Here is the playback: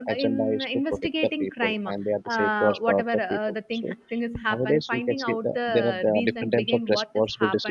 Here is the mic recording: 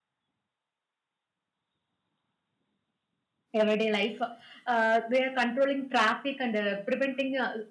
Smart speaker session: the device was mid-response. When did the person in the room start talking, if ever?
3.6 s

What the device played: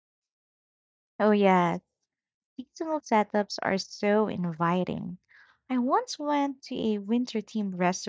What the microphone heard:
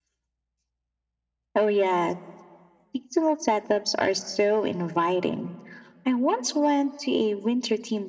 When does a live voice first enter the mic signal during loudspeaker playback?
none

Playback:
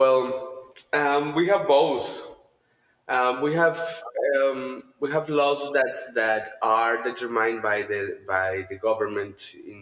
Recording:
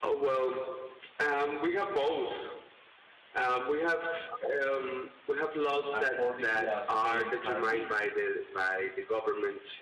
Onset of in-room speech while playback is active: 5.9 s

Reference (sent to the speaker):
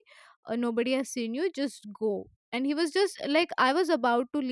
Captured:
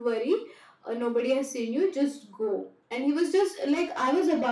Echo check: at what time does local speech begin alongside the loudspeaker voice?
none

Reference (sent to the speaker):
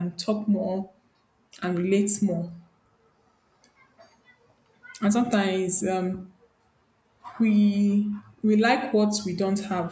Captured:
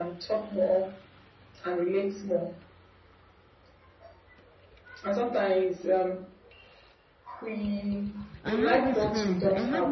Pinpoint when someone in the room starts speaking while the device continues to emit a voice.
8.4 s

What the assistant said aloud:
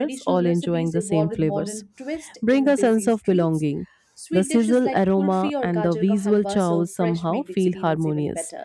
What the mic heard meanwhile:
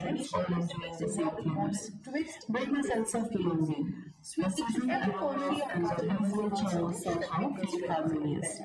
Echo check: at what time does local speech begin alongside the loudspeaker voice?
4.9 s

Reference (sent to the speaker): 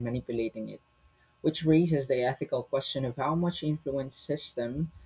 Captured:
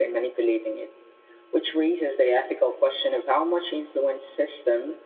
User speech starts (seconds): none

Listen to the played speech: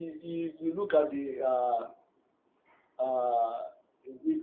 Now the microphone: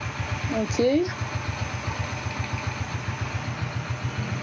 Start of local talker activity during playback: 0.5 s

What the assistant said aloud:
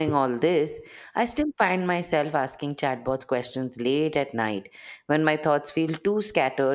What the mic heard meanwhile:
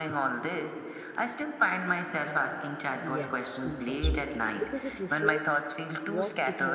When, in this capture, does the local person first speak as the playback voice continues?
3.0 s

